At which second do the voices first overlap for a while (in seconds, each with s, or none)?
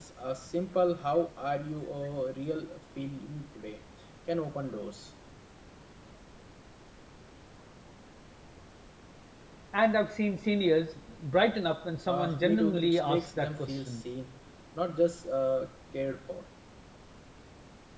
12.1 s